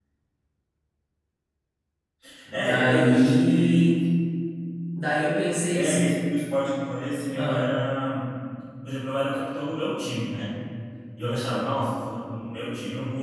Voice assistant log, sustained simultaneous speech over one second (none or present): present